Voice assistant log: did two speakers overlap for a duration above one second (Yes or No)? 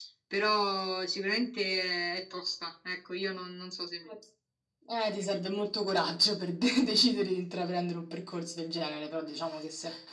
No